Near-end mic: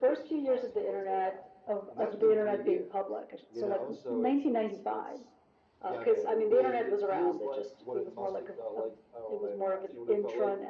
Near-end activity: present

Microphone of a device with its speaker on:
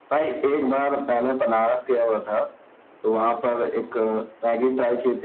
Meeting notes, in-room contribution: none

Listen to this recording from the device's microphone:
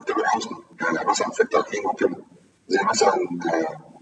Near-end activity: none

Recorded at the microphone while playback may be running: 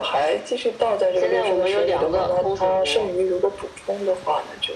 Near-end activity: none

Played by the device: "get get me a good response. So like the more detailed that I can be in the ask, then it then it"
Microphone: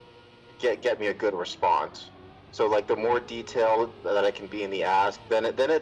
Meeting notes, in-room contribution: none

